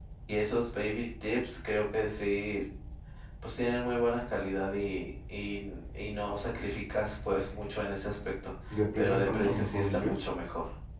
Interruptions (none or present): present